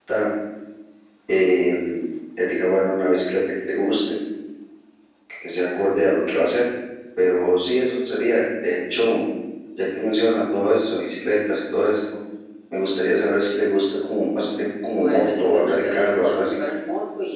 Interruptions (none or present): present